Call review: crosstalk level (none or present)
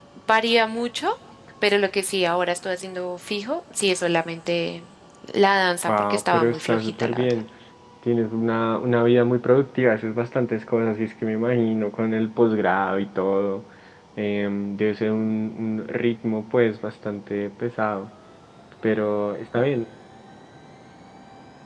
present